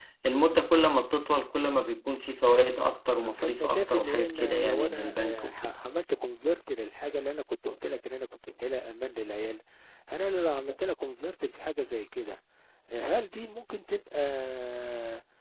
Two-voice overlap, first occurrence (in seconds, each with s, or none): 3.2 s